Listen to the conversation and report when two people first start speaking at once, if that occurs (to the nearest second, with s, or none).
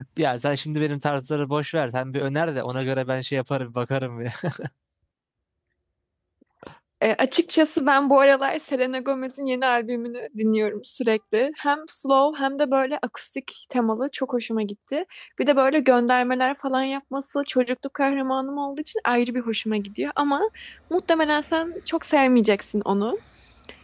none